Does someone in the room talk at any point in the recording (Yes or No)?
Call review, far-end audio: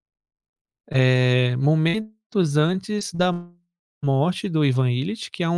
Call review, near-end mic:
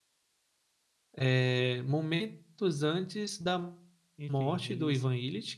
Yes